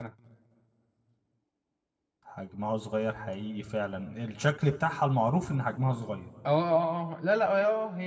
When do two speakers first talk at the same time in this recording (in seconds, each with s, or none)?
none